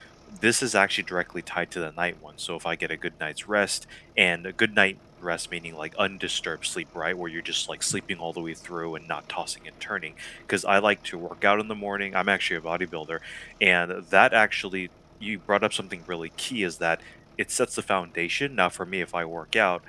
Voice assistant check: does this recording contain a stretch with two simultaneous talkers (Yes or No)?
No